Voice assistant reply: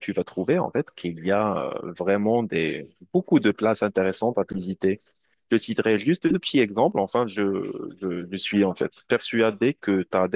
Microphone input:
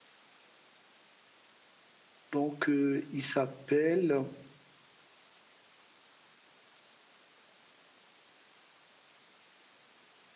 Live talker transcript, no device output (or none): Donc euh, il s'appelle,